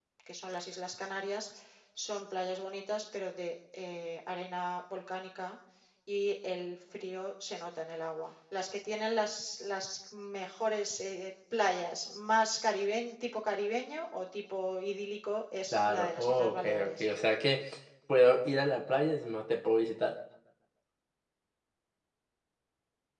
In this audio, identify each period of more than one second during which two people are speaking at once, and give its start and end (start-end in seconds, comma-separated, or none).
15.7-17.0